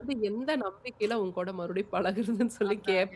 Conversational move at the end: taking over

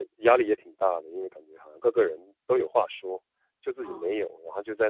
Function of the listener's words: listening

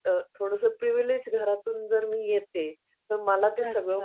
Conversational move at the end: listening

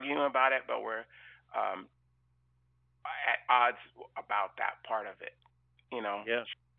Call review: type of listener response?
listening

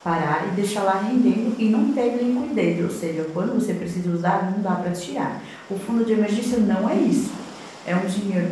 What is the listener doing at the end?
listening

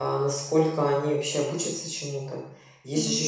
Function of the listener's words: listening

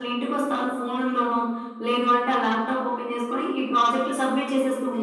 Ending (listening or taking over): taking over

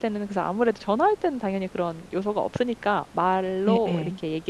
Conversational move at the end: listening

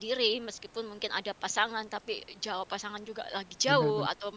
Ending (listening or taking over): listening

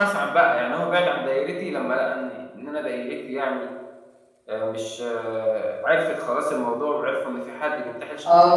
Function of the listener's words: taking over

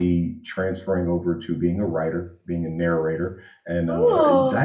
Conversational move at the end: listening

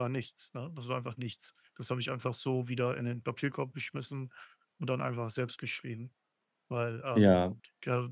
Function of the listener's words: listening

